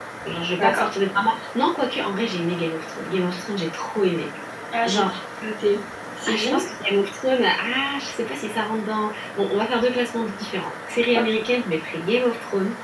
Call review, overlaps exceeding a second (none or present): none